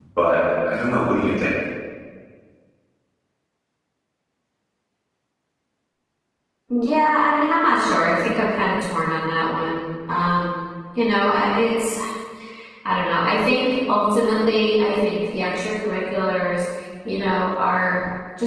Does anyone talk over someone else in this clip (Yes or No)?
No